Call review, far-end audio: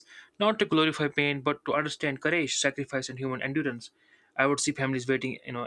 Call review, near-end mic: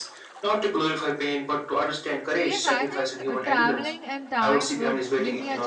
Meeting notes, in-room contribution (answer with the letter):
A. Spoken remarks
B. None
A